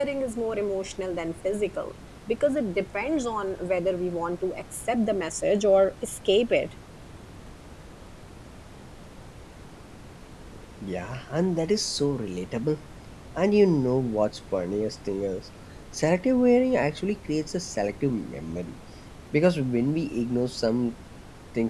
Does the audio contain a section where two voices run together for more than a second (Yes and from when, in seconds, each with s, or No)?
No